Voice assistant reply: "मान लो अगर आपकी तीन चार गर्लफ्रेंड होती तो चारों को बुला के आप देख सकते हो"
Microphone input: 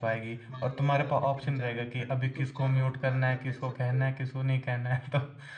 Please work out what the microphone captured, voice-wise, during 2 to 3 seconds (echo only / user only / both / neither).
both